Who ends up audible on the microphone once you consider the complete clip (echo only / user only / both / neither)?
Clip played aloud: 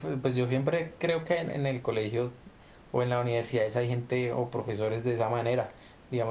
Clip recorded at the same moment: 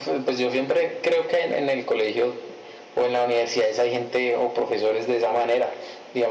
echo only